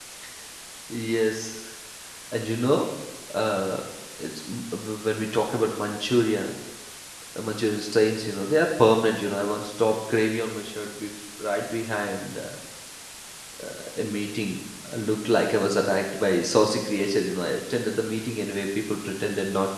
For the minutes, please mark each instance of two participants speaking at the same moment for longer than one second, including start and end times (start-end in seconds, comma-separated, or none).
none